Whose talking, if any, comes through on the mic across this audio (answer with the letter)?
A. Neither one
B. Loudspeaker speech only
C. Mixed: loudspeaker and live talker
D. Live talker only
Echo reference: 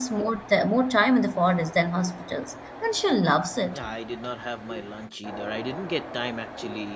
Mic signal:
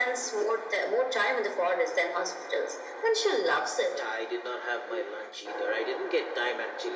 B